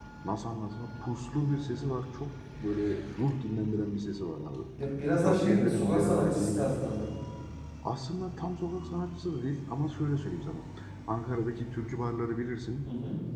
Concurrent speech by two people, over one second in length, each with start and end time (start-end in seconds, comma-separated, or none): 5.2-6.8